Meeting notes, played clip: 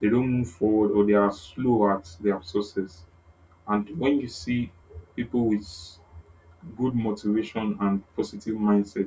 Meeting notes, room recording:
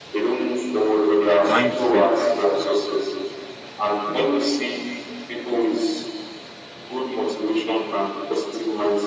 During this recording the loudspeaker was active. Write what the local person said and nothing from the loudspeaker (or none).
mindsets